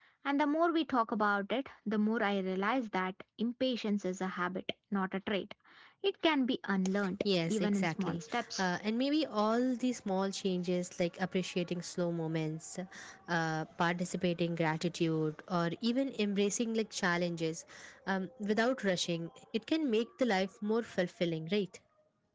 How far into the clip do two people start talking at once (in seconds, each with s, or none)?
7.5 s